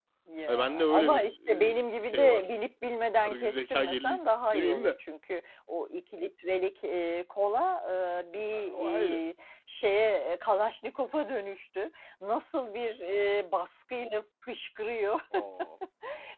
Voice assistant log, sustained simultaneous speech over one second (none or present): present